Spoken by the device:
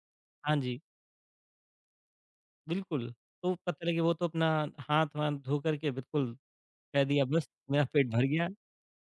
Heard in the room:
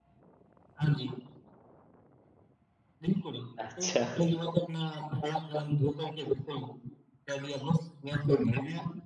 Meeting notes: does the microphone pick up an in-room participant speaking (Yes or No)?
Yes